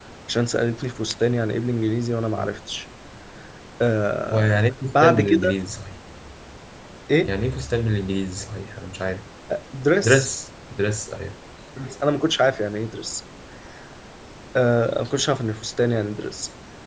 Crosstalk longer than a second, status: present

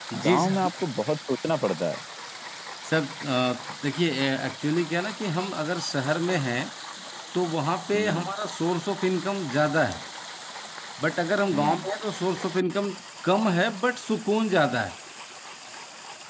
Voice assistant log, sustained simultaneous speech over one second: none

